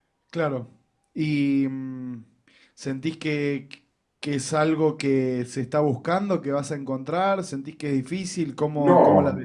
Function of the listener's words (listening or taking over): taking over